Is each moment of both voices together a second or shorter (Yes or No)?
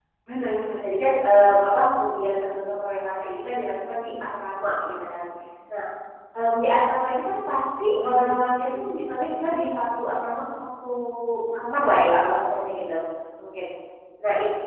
Yes